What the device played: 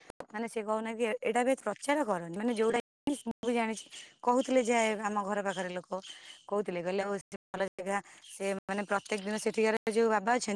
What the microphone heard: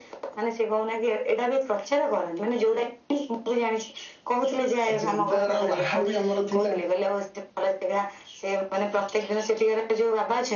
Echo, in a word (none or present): present